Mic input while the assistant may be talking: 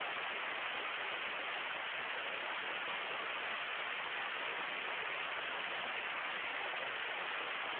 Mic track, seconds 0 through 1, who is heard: neither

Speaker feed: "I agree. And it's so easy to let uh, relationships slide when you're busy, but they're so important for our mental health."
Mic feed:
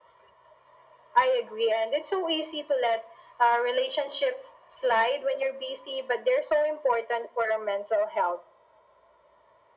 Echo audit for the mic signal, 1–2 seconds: echo only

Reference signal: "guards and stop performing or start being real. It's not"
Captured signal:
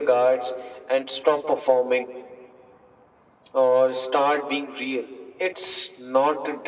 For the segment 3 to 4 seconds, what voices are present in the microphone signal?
echo only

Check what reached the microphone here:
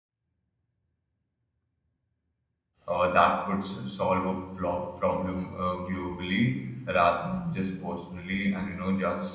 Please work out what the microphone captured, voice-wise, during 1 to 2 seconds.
neither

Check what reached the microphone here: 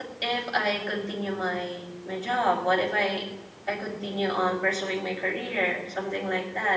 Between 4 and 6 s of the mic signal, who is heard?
user only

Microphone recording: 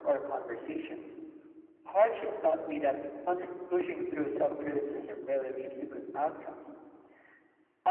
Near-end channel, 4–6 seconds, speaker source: echo only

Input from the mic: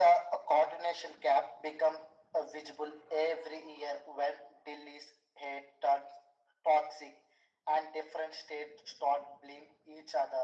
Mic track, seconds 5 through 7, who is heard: echo only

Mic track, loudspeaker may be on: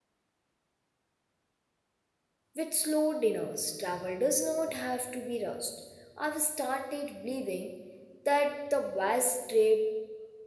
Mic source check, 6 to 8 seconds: user only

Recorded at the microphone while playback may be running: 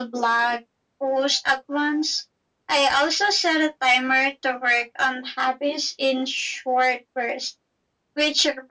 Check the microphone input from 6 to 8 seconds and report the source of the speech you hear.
echo only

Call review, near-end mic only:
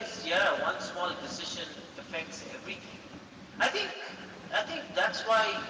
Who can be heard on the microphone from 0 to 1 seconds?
echo only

